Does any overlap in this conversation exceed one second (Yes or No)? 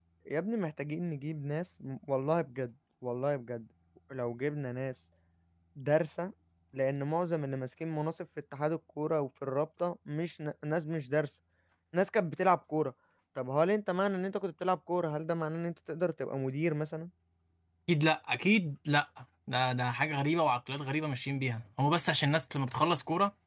No